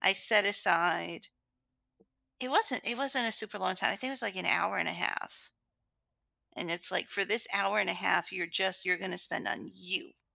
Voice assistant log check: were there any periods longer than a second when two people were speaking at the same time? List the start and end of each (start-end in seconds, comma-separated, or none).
none